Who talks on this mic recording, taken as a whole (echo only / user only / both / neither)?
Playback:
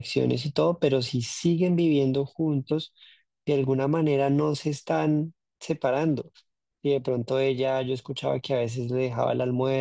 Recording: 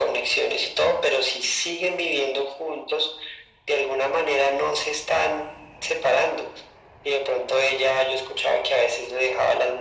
echo only